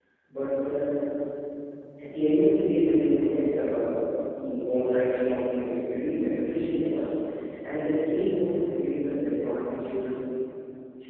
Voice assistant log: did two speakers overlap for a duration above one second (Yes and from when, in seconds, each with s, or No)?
No